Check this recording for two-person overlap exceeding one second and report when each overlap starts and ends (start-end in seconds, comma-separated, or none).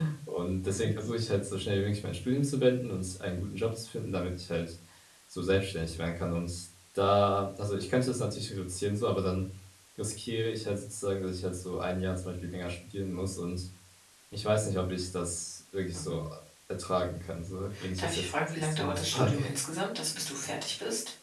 18.0-19.4